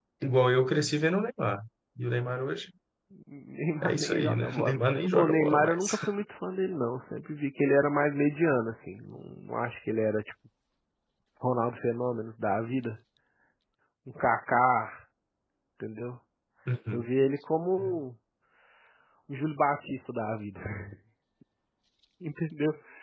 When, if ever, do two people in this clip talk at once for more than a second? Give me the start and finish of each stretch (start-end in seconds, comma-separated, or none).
3.8-5.8